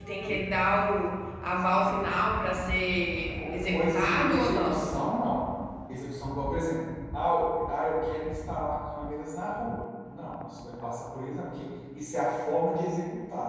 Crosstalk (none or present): present